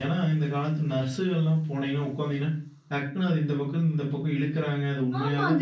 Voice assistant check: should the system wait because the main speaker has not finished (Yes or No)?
No